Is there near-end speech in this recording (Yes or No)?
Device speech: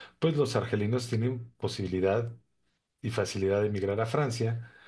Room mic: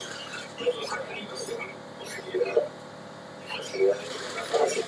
No